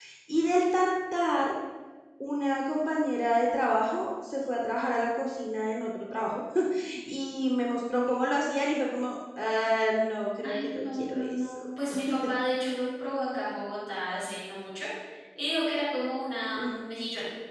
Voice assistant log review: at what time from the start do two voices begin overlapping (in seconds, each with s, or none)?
10.4 s